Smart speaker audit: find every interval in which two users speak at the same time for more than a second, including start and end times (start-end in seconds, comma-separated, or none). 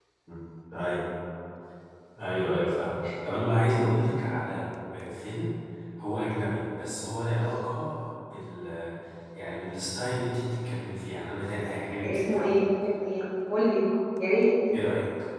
none